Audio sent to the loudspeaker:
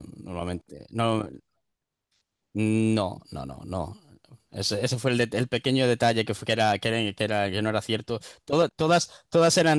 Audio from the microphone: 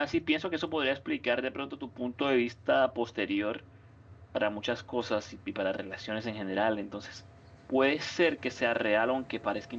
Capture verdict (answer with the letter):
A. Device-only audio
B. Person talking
B